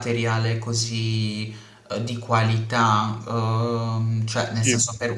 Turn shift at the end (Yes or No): No